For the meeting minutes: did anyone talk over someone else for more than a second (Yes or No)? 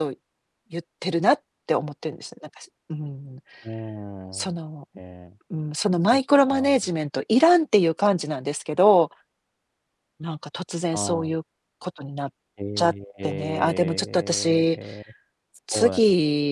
Yes